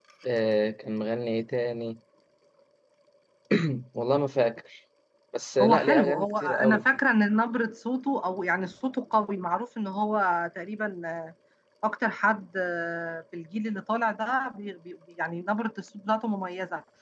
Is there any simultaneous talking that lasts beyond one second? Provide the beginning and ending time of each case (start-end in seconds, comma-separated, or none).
5.6-6.8